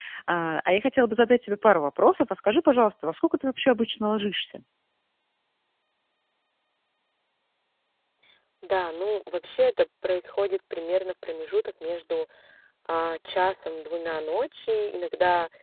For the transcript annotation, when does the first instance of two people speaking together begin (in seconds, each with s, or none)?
none